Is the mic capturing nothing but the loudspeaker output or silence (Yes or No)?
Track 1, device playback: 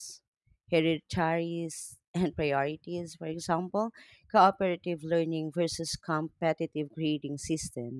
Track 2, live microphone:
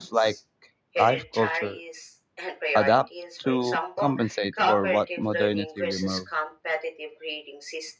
No